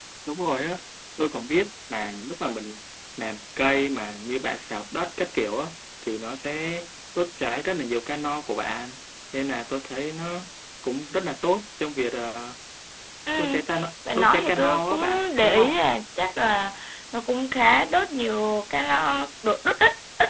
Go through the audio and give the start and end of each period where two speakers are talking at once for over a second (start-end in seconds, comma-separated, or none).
14.1-15.8